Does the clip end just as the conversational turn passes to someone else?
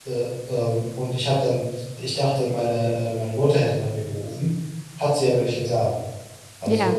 No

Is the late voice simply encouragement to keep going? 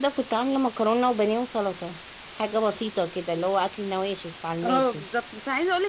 No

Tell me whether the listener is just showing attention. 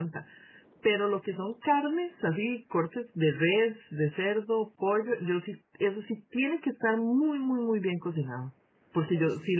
Yes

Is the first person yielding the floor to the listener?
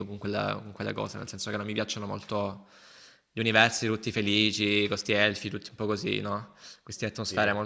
No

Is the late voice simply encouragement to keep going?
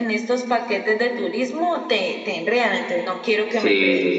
No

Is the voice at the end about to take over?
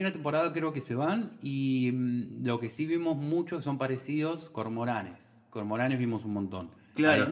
Yes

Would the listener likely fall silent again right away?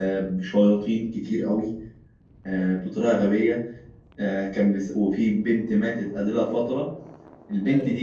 Yes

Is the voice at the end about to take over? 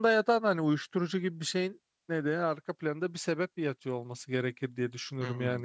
Yes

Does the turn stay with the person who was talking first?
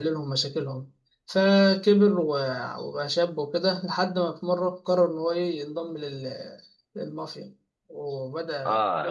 No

